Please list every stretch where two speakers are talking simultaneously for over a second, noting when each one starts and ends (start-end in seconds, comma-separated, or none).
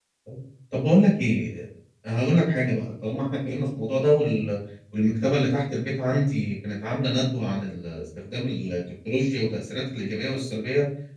none